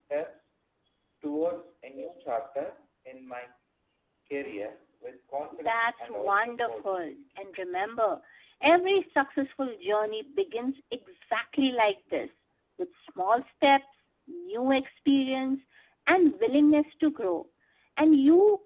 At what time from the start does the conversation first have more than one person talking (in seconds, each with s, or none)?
5.7 s